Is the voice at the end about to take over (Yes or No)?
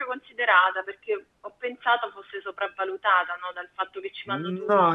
Yes